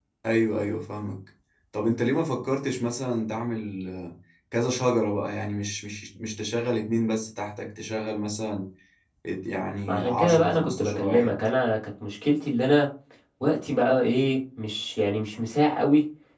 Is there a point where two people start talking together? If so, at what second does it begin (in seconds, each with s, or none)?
9.9 s